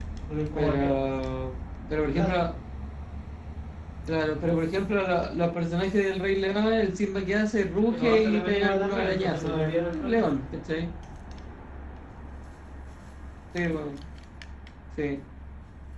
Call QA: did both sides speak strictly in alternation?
No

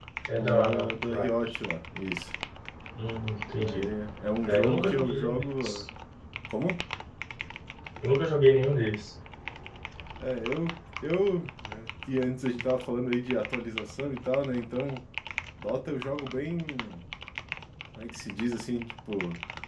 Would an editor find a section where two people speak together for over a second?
Yes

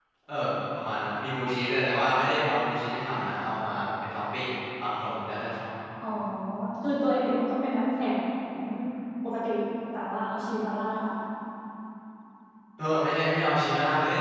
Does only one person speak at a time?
Yes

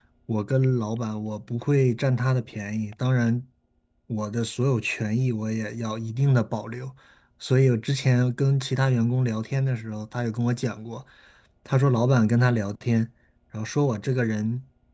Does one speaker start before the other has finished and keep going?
No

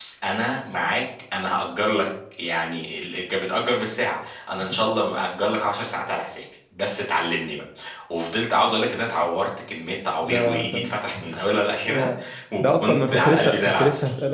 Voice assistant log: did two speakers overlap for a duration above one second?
Yes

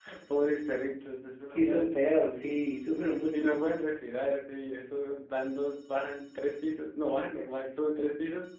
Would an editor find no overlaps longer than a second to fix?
Yes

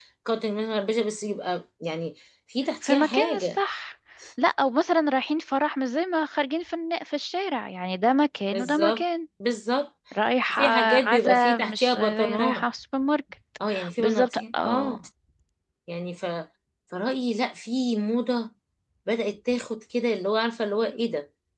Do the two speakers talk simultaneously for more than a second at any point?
Yes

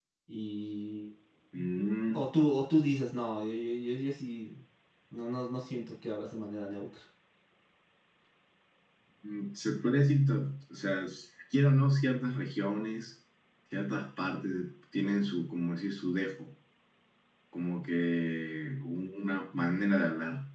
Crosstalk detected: No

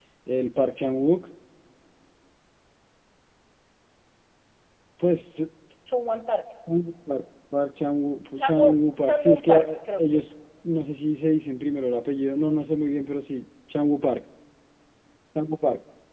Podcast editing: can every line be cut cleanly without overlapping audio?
No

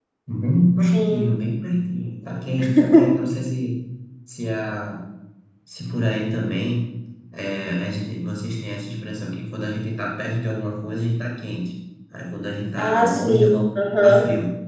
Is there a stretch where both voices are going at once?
Yes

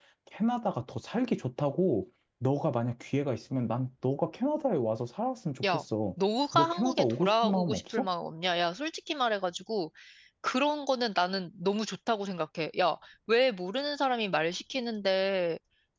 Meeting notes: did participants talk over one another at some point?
Yes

